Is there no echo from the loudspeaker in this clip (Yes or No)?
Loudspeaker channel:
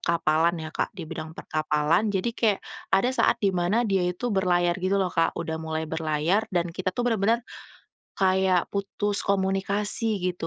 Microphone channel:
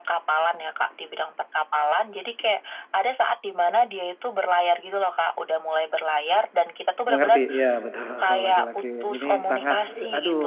No